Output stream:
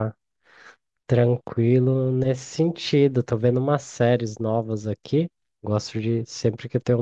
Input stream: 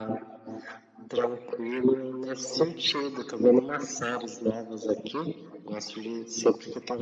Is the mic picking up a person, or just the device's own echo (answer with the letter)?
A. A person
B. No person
B